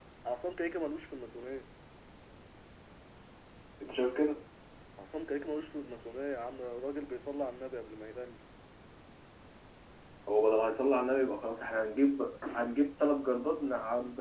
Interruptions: none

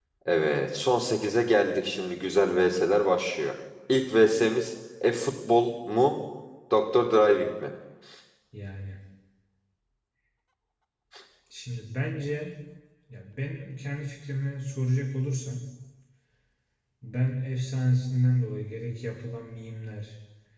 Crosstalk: none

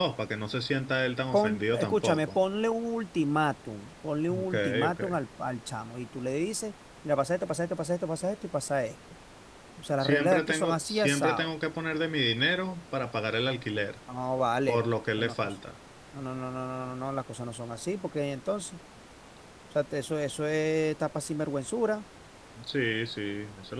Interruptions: present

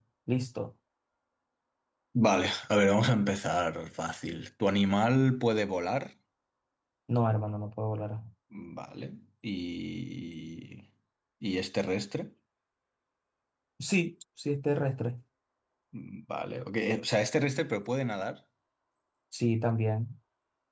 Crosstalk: none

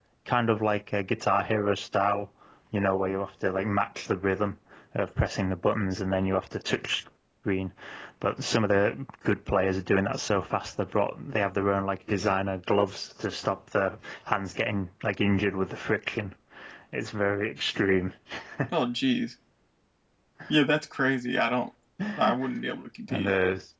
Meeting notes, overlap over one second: none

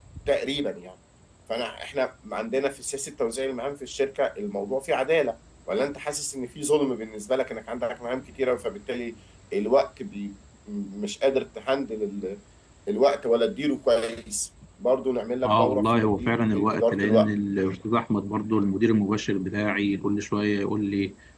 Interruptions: present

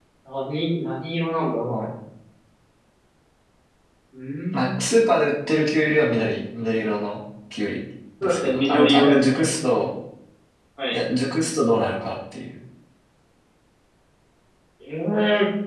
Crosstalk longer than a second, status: present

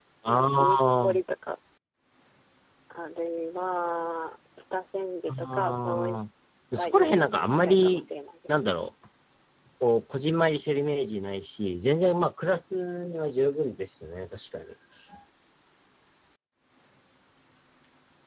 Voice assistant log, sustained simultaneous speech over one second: present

